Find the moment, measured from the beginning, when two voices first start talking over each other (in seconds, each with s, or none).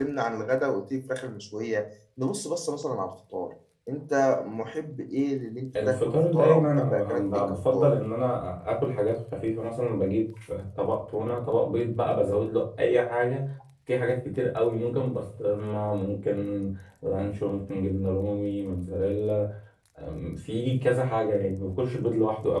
5.8 s